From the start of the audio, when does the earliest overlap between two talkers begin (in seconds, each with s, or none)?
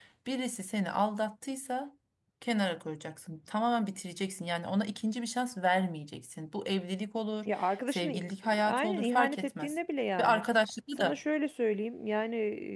7.5 s